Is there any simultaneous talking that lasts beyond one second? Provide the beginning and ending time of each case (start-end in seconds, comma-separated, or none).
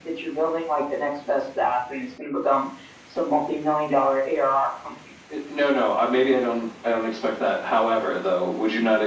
none